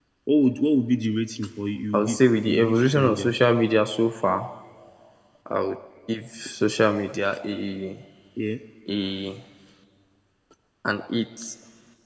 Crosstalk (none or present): present